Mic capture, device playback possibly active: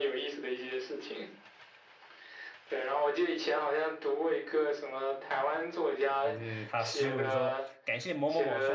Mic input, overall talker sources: both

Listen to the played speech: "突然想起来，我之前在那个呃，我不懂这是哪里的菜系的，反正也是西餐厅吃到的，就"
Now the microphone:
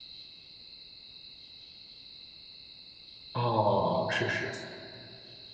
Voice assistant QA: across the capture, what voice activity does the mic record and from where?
user only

